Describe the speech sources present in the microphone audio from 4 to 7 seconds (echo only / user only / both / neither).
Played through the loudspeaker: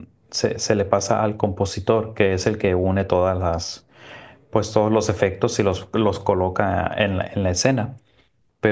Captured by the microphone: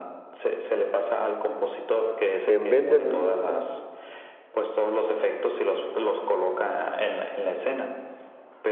echo only